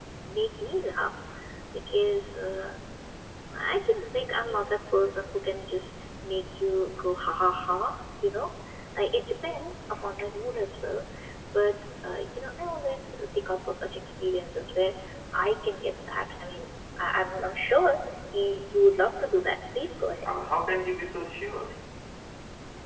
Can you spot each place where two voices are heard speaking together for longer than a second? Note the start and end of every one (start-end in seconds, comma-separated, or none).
none